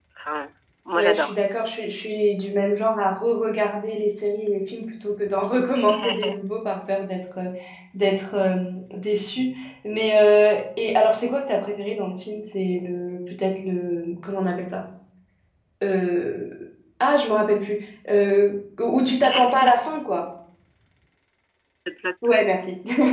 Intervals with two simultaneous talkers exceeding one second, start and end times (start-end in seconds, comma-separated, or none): none